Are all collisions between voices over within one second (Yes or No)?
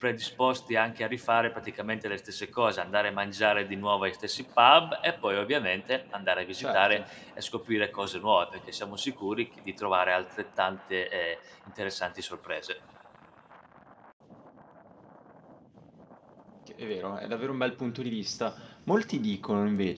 Yes